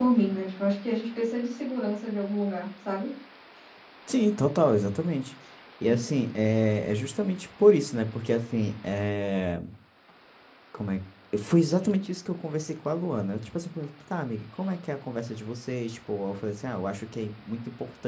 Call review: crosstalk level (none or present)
none